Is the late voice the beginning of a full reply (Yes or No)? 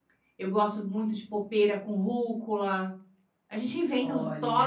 No